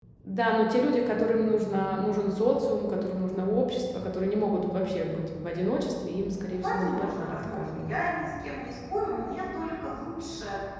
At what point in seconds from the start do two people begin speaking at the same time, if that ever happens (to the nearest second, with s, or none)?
6 s